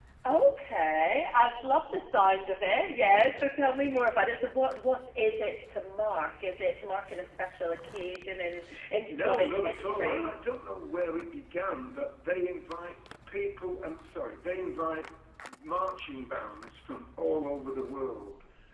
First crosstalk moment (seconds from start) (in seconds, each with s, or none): 9.1 s